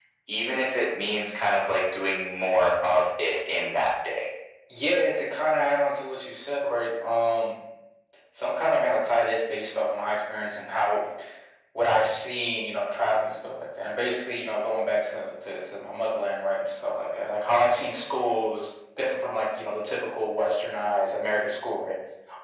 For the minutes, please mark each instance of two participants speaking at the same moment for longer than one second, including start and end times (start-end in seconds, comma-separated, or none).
none